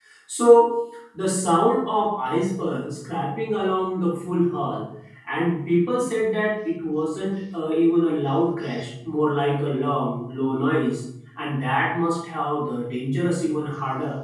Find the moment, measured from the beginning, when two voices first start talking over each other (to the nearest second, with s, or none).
none